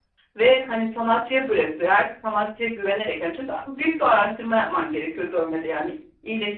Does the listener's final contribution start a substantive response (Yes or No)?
No